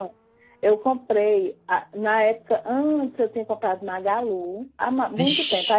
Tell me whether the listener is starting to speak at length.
No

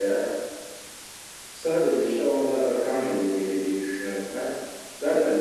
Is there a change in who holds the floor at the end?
No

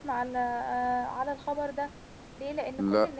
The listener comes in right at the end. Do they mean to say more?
No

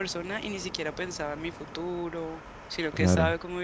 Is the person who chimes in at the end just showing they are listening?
Yes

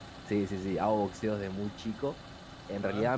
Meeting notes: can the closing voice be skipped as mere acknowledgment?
Yes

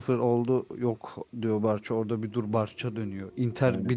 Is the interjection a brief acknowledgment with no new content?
Yes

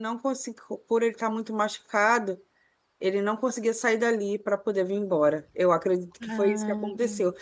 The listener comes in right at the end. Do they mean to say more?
No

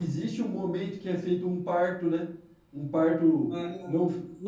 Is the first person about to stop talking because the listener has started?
Yes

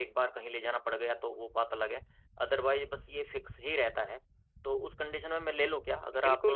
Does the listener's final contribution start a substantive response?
Yes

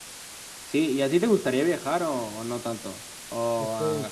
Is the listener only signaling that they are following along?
No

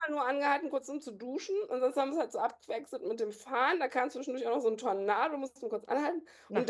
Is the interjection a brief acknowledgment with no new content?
Yes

